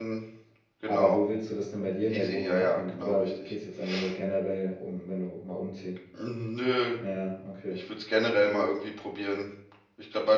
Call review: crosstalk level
present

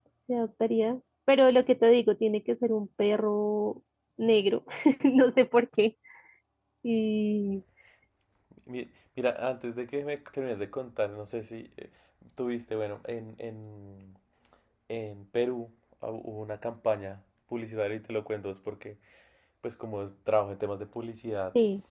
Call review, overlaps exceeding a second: none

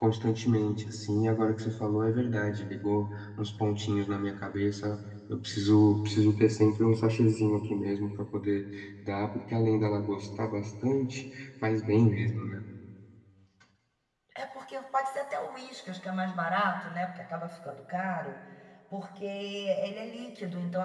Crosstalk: none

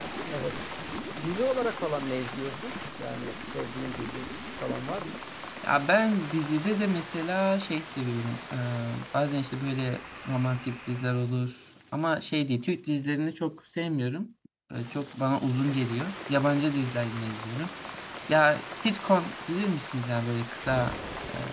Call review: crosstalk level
none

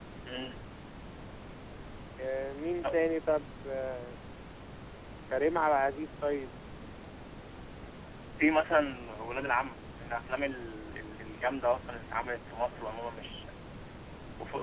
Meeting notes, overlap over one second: none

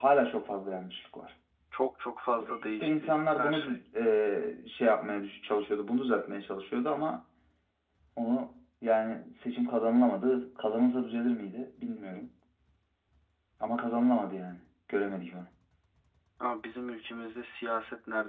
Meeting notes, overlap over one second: present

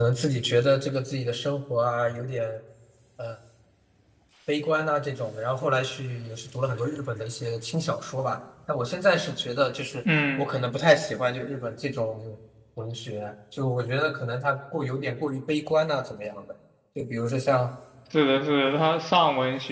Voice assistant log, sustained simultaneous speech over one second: none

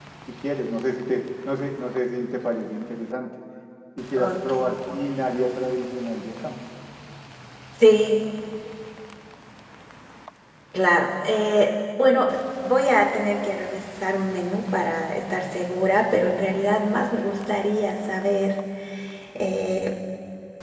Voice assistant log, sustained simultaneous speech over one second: none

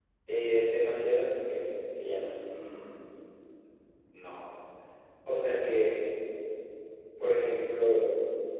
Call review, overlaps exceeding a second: none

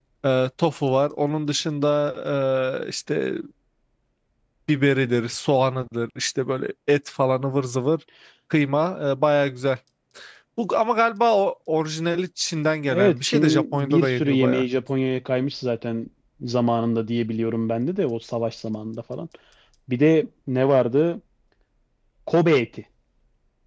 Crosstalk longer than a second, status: present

